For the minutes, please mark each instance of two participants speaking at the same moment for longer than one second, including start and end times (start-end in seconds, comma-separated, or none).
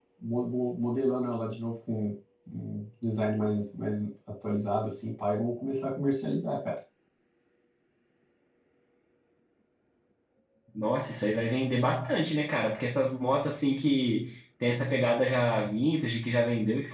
none